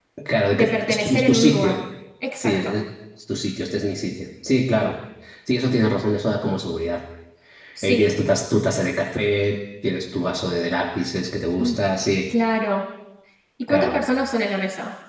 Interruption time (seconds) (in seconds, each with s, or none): 0.6 s